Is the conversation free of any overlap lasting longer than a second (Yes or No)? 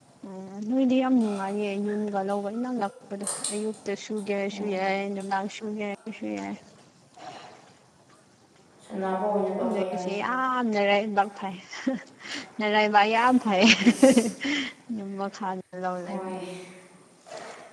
Yes